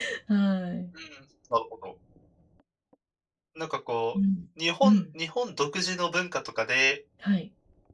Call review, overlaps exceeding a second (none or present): none